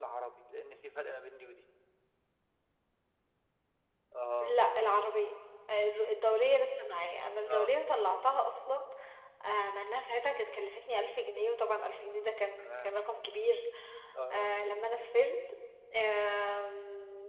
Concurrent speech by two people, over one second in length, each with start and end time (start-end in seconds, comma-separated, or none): none